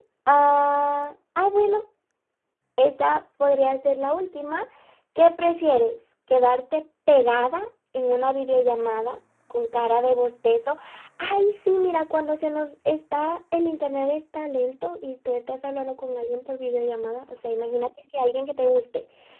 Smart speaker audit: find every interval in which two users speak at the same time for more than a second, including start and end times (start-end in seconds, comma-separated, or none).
none